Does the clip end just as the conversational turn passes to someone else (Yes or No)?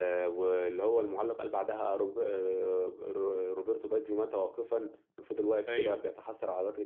No